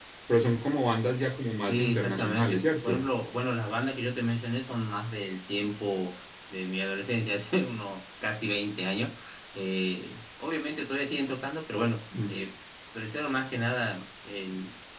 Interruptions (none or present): present